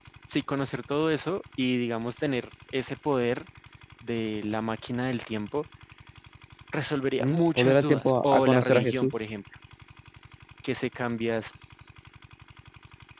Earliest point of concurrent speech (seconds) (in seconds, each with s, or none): 7.2 s